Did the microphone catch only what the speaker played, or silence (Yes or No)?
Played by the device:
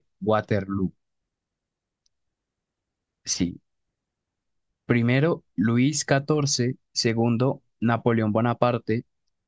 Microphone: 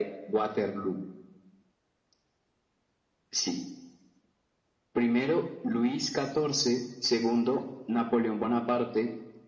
Yes